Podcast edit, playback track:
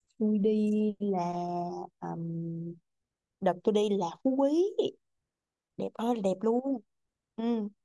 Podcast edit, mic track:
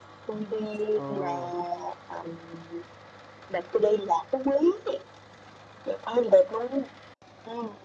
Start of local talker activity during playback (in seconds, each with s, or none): 0.9 s